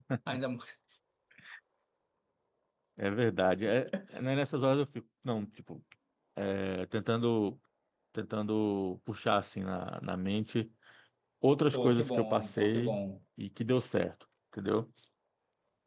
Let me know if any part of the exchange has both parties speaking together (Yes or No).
Yes